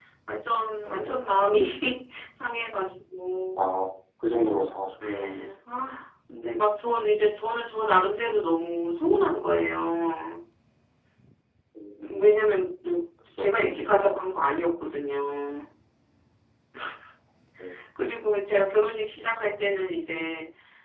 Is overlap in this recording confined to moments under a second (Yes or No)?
Yes